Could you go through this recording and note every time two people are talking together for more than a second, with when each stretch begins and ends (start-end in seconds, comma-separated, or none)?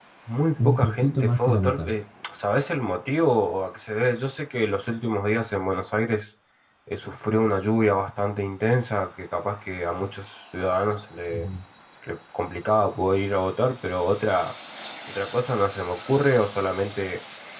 0.6-1.9